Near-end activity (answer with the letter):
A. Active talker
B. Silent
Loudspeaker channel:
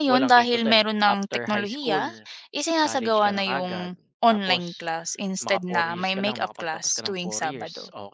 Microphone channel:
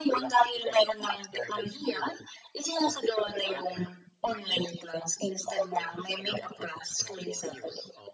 B